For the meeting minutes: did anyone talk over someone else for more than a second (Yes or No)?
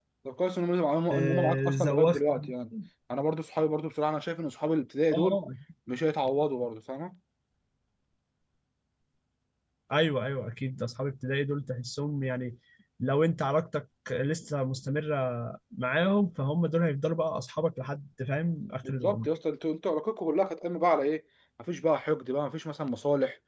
Yes